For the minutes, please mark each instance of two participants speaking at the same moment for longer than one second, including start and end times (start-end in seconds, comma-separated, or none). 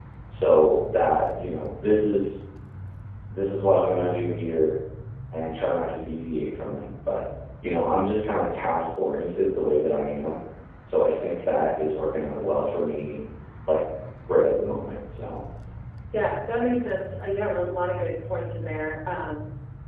none